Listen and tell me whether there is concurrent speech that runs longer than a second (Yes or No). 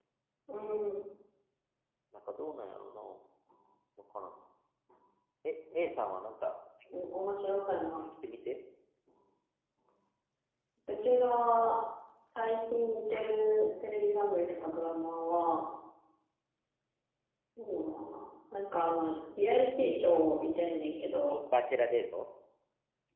No